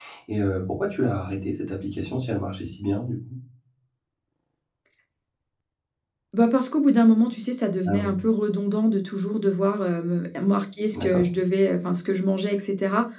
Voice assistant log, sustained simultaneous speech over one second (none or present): none